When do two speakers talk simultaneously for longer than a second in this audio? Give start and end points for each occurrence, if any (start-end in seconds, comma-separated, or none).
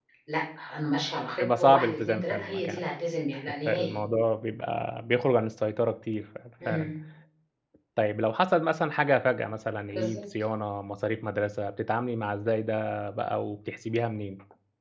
1.4-2.8